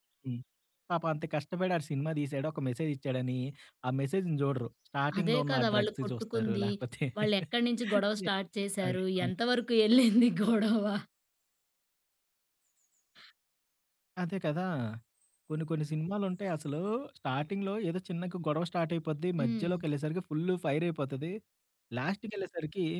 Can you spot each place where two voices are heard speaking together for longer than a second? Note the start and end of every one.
5.2-6.6

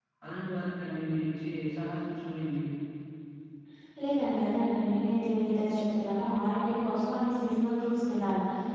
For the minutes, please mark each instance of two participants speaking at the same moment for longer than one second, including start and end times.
none

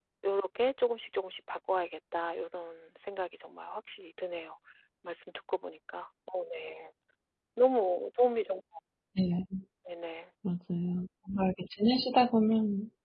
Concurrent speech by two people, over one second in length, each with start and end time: none

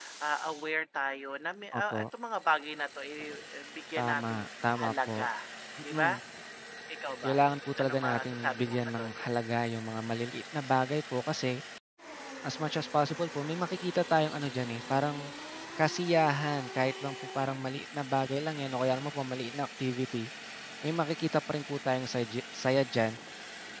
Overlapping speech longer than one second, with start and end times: 4.0-5.3, 7.8-9.1

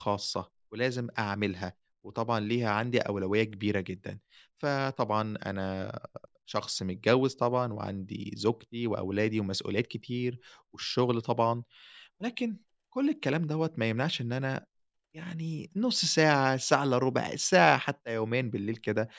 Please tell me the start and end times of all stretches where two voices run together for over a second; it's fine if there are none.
none

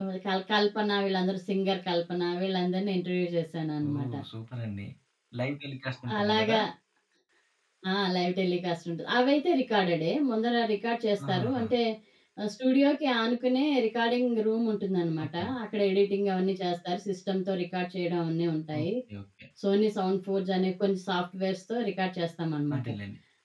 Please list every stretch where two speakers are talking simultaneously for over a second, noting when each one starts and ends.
none

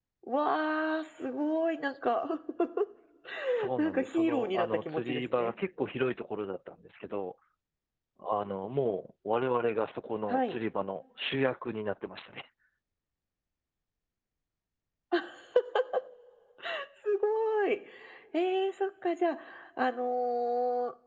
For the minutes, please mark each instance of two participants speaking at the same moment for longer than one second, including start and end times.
3.8-5.5

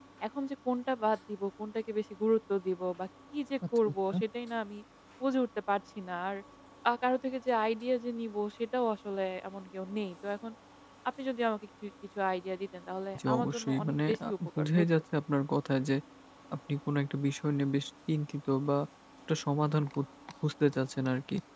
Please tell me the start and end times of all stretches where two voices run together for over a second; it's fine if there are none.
13.3-14.8

